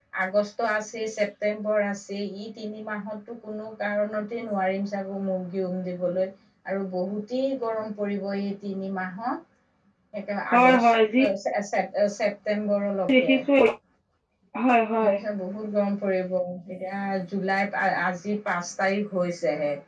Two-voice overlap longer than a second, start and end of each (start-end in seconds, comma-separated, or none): none